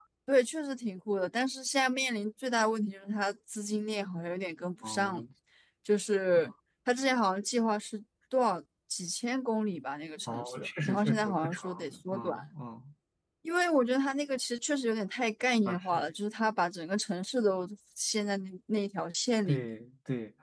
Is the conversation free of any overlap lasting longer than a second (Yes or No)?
No